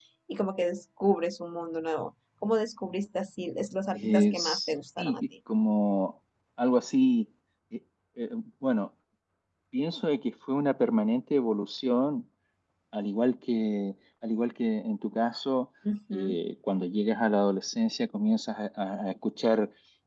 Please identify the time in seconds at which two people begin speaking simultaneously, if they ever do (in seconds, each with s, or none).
3.9 s